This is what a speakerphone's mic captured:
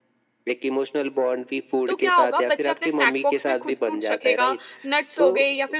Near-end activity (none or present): present